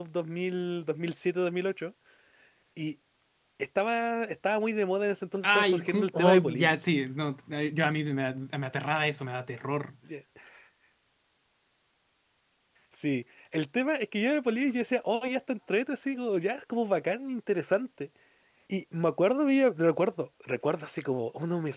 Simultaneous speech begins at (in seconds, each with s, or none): 5.4 s